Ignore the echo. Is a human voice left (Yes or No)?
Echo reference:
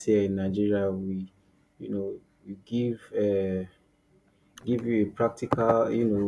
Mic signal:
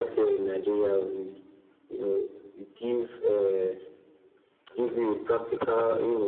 No